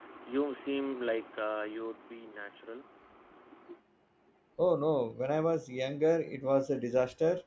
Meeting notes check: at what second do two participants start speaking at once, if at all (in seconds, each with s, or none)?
none